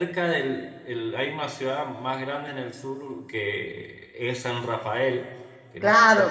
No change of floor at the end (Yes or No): No